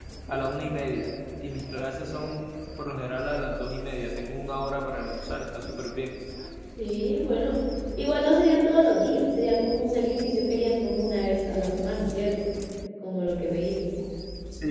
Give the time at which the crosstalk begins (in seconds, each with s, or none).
none